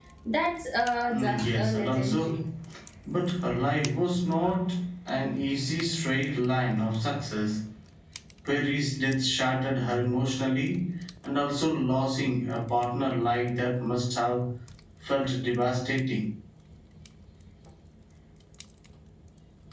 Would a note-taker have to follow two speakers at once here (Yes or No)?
Yes